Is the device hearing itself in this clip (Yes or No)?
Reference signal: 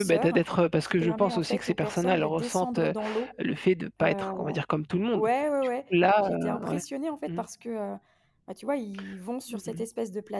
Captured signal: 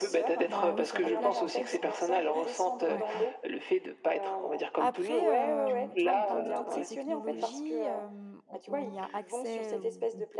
Yes